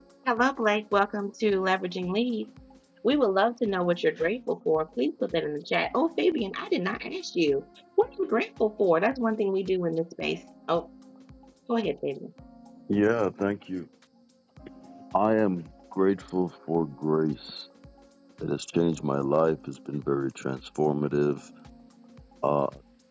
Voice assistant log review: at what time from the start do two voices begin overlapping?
none

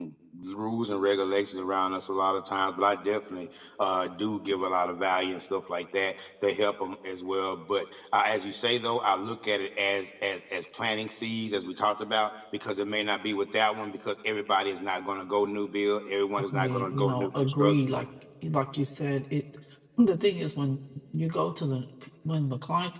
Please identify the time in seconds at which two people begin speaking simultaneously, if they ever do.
16.5 s

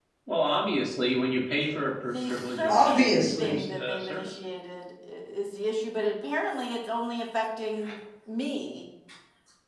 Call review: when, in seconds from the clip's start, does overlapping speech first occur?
2.1 s

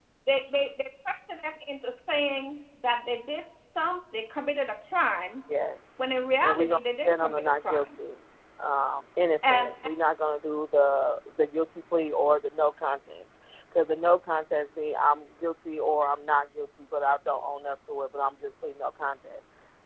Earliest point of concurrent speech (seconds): 6.4 s

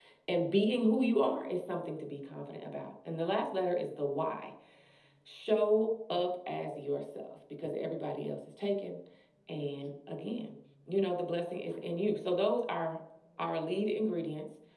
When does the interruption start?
none

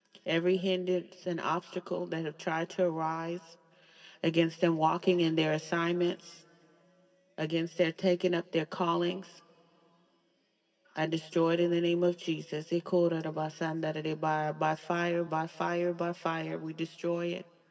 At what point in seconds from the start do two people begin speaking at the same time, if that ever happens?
none

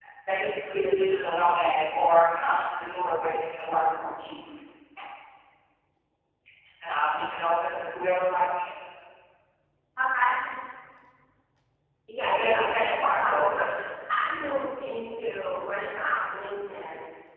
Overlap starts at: 12.3 s

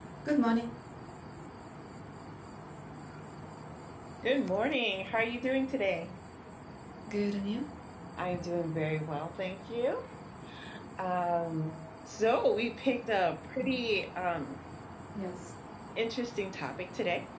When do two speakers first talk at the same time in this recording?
none

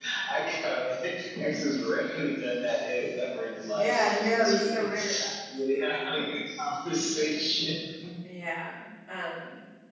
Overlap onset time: 3.6 s

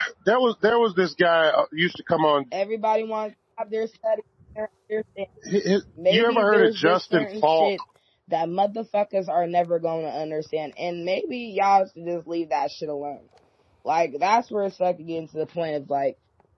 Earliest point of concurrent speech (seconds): 6.1 s

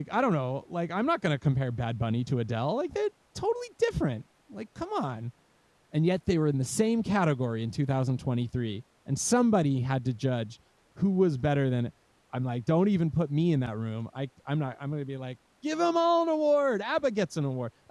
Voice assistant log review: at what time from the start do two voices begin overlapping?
none

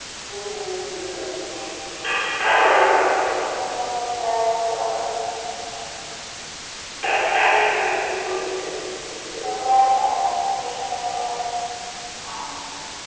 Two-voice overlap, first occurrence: none

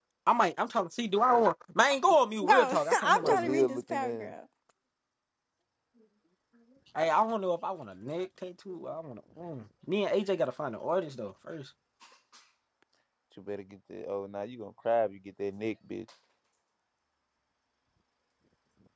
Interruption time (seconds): 2.4 s

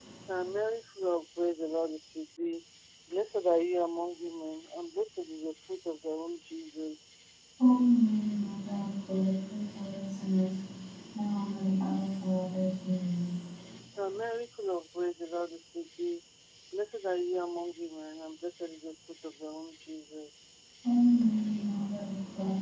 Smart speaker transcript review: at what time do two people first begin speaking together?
none

